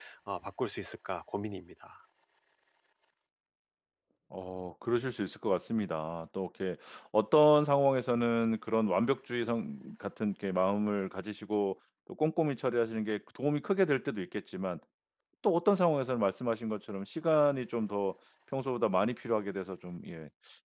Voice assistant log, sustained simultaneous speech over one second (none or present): none